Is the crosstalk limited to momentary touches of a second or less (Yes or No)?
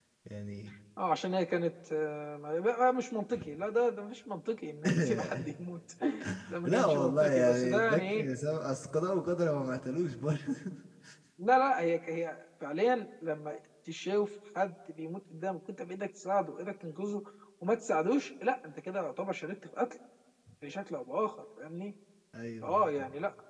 No